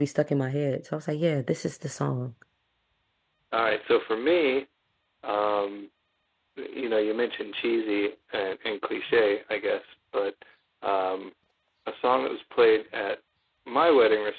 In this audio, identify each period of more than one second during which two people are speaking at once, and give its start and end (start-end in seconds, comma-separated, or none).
none